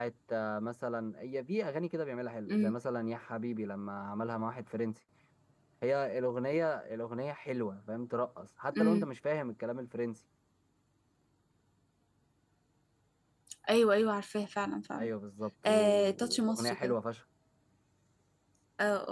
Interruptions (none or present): present